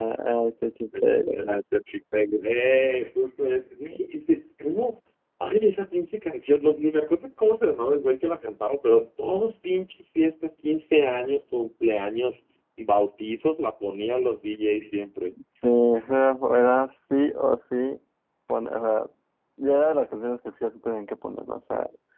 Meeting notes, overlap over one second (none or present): none